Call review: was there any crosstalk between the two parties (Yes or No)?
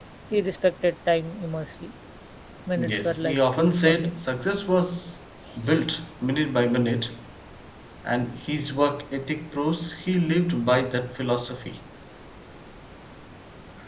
Yes